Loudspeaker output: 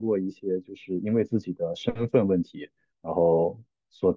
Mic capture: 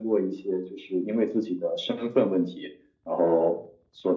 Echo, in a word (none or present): present